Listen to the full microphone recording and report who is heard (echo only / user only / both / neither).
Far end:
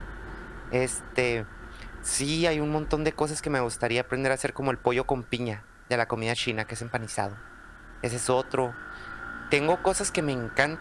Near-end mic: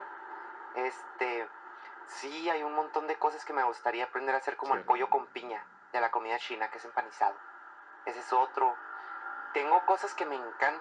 both